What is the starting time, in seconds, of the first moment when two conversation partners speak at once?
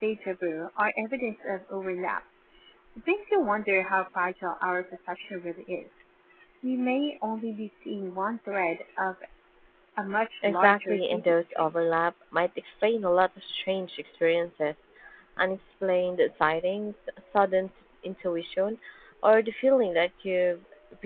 10.4 s

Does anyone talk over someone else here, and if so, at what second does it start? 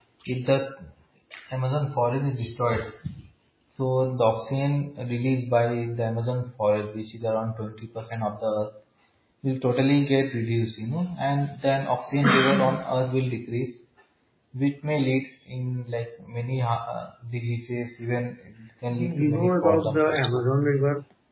18.9 s

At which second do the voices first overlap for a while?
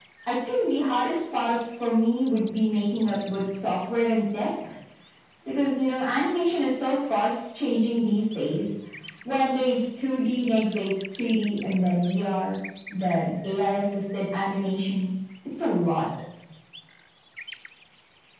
none

